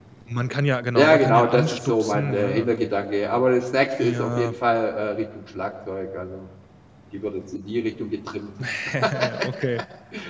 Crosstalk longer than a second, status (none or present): present